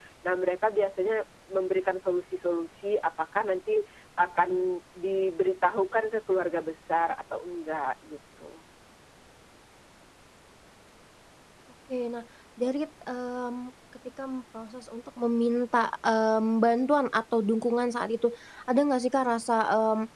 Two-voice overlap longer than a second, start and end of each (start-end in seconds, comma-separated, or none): none